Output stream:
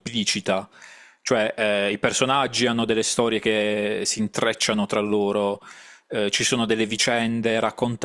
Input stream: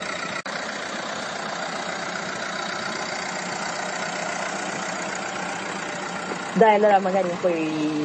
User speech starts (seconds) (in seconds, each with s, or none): 6.5 s